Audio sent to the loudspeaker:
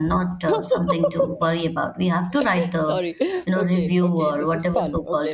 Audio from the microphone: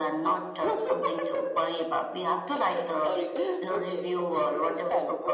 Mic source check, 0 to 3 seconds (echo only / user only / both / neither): echo only